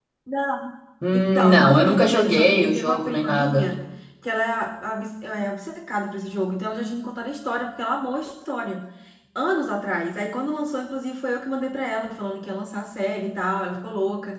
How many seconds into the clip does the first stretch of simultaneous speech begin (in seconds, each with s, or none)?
1.1 s